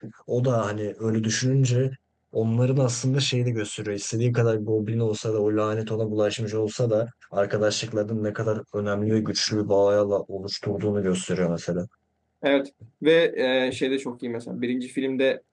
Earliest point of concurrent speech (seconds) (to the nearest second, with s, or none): none